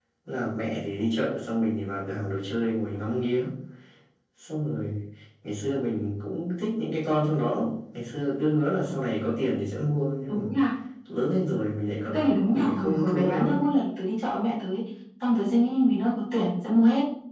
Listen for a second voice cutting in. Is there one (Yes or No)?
Yes